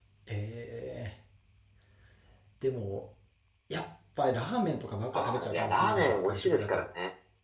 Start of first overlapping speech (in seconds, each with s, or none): 5.1 s